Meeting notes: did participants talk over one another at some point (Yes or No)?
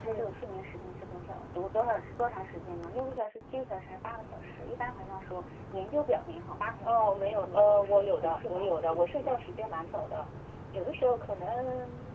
Yes